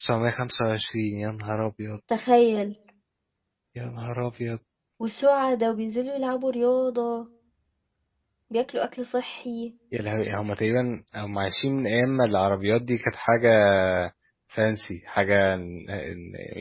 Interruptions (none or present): none